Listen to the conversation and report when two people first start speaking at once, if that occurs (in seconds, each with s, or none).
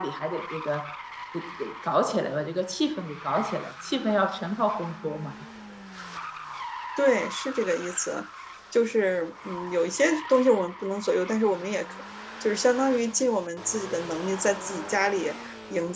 none